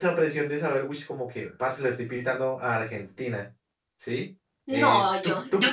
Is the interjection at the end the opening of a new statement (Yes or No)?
Yes